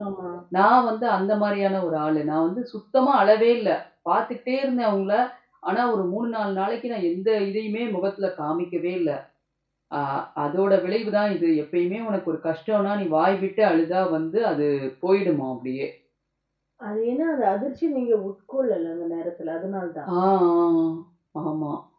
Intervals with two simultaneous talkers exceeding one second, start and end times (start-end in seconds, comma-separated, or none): none